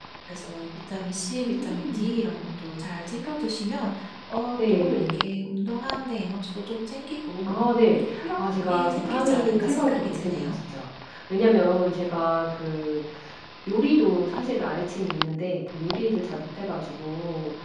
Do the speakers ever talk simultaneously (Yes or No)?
Yes